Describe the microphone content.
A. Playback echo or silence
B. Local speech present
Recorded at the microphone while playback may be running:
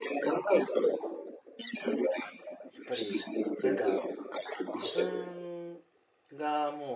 B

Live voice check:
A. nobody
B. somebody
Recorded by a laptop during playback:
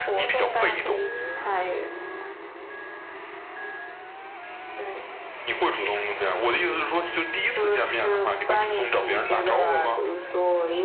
A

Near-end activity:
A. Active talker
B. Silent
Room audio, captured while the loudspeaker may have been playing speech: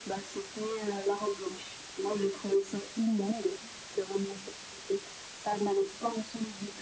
B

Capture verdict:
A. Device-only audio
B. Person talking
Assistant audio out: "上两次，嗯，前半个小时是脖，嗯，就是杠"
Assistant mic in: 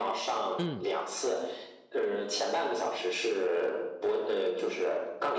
B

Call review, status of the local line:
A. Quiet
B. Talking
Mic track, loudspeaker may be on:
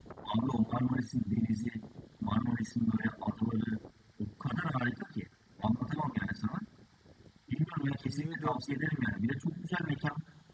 B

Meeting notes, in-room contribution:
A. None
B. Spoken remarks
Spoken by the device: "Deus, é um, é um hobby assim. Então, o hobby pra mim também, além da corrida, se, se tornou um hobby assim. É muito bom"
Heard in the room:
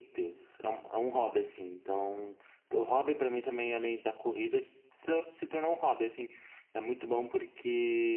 A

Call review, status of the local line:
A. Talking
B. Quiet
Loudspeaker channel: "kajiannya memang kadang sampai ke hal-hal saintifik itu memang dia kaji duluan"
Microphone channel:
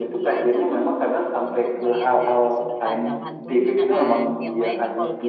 A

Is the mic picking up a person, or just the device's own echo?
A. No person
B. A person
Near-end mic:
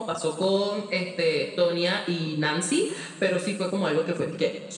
A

